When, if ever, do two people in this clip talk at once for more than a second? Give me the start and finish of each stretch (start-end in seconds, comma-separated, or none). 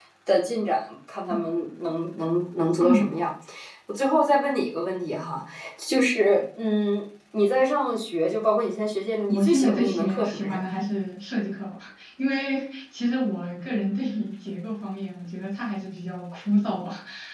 9.3-10.6